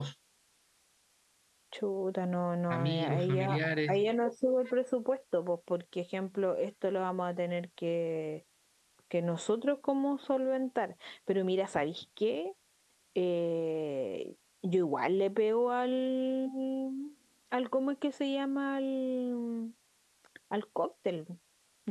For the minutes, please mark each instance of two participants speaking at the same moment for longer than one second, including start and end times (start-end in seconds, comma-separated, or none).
2.7-4.0